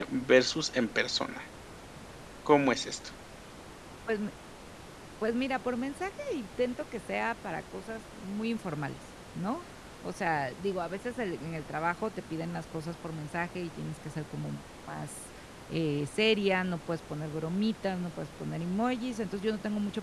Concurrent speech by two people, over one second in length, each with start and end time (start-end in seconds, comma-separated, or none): none